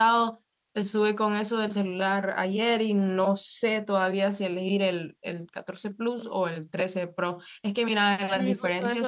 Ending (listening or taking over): taking over